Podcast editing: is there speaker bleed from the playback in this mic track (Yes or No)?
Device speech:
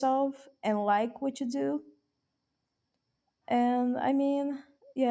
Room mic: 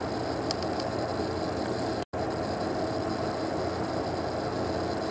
No